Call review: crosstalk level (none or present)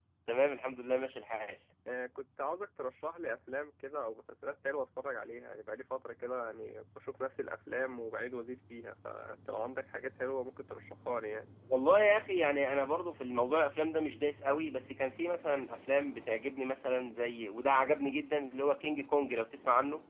none